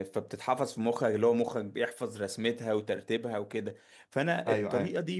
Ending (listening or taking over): listening